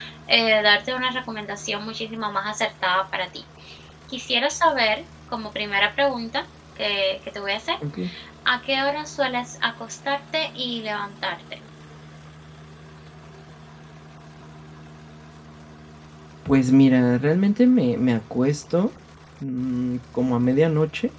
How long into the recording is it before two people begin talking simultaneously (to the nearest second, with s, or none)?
none